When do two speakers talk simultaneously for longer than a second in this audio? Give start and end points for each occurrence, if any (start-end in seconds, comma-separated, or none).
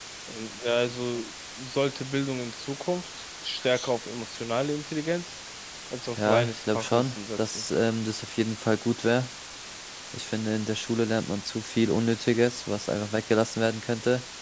6.2-7.6